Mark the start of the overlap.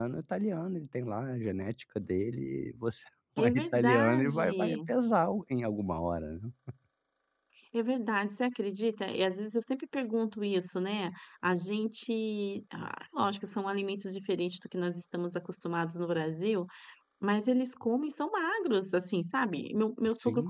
3.4 s

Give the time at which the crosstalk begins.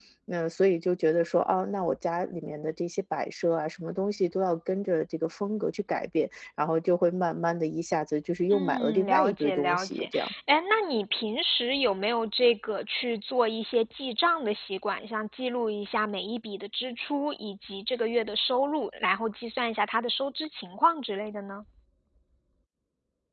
8.5 s

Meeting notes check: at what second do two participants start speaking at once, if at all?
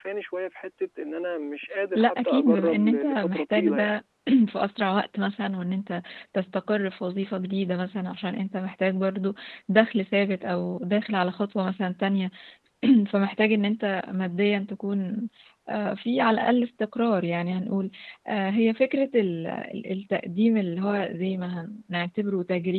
1.9 s

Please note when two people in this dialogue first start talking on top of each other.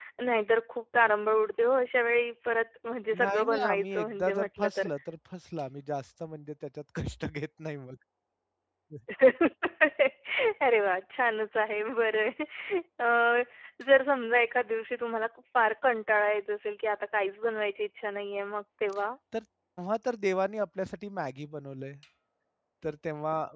3.1 s

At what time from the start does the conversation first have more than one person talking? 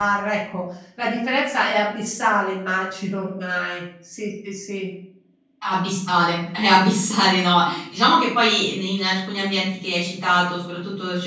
none

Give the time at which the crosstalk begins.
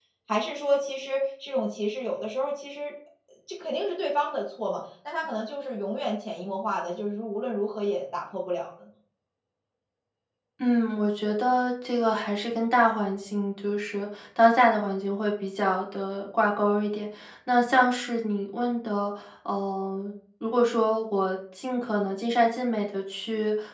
none

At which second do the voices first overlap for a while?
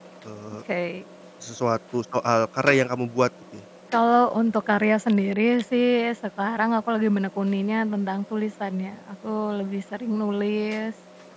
none

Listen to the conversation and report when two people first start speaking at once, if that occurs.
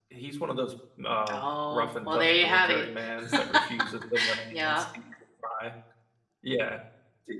1.3 s

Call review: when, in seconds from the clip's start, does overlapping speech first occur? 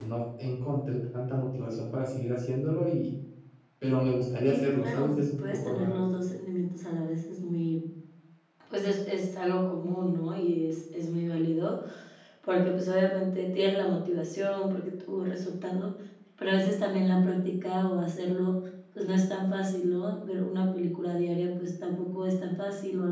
4.4 s

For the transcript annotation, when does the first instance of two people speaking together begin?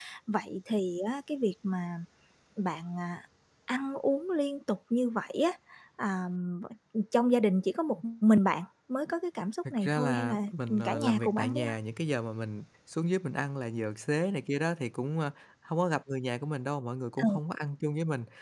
9.7 s

